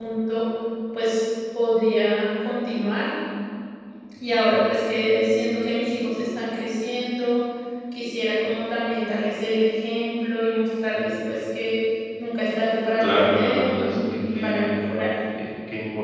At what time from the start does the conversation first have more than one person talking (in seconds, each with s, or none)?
13.0 s